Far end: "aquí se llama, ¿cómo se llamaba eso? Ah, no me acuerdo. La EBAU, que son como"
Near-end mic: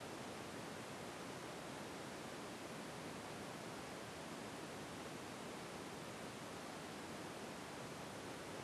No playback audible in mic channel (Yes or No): Yes